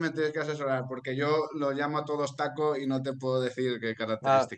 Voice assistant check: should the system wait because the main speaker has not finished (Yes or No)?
No